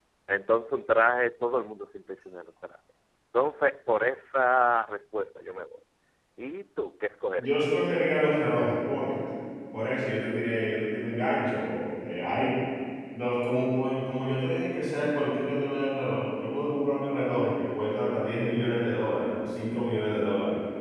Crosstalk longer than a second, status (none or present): none